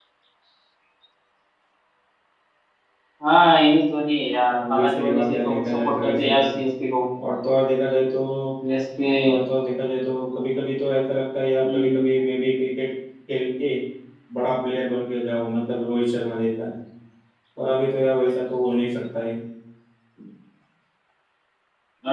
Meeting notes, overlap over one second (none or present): present